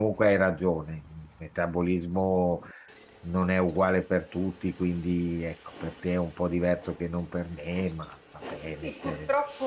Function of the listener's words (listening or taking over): taking over